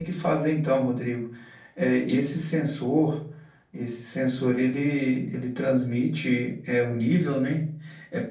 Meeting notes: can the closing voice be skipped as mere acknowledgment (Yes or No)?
Yes